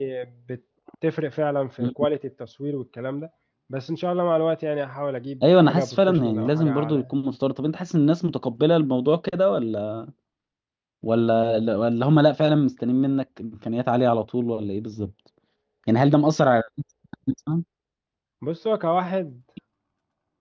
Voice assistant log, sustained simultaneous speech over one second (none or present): present